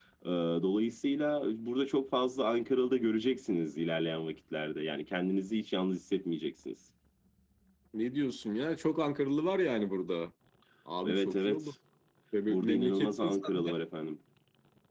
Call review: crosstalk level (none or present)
present